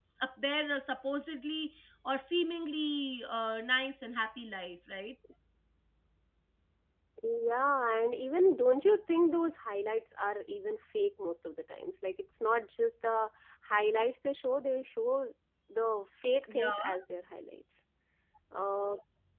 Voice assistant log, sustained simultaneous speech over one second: none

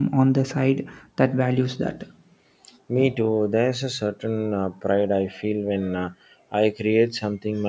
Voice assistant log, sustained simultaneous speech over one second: none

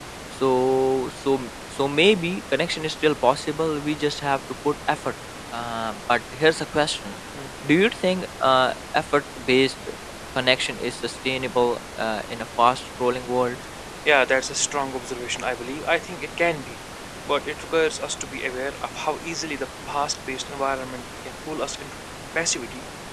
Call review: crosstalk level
none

